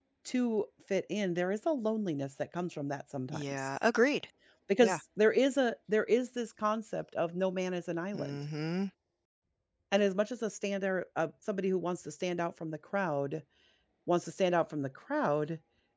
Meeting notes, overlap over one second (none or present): none